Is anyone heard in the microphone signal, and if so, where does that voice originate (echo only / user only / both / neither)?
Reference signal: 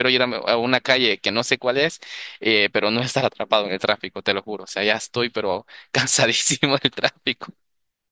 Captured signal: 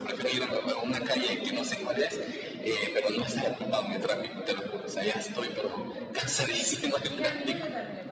both